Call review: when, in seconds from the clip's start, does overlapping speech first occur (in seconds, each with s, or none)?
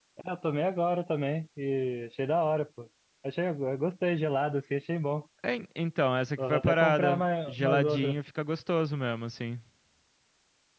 6.4 s